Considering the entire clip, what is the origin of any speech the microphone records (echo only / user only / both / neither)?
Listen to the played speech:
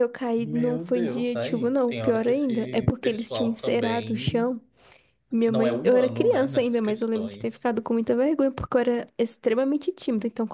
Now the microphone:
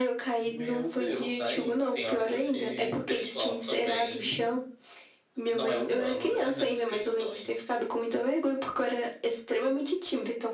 echo only